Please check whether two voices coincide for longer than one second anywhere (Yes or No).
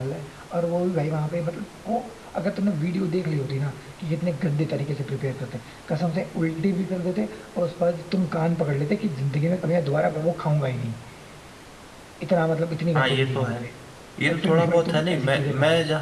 Yes